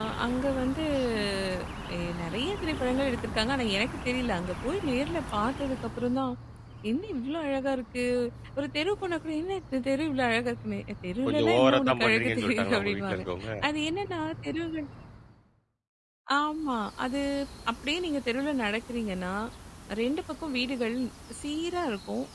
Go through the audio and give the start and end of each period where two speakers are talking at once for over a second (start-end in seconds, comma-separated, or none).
11.3-13.2